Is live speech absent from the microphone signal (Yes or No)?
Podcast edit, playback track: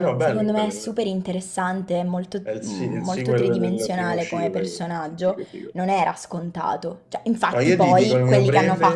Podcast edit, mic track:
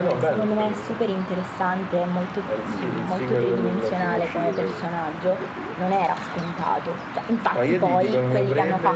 Yes